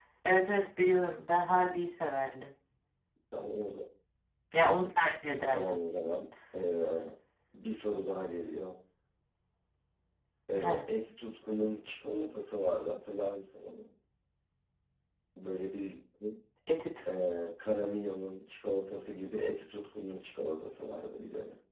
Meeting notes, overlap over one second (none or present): none